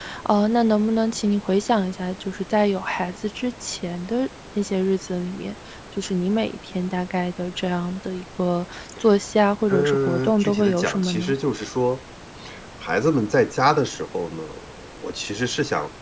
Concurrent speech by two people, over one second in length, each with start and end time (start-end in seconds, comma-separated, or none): 9.7-11.3